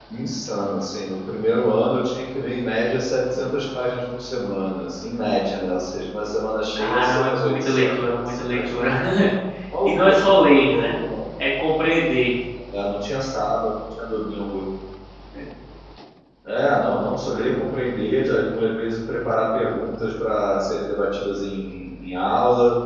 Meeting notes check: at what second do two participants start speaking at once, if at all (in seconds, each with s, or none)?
6.8 s